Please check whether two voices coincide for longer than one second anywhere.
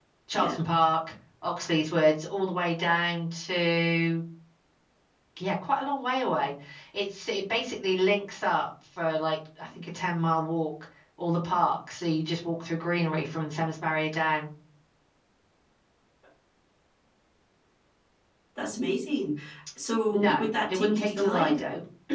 Yes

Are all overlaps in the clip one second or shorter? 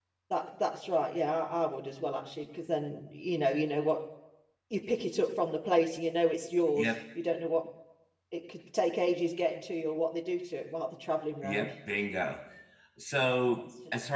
Yes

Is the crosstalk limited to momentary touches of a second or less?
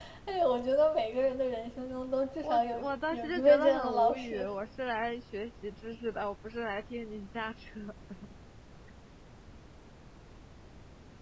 No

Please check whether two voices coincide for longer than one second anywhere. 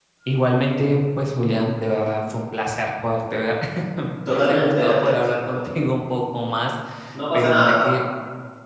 Yes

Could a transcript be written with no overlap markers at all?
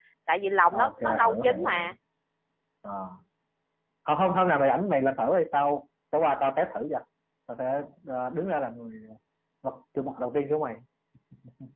No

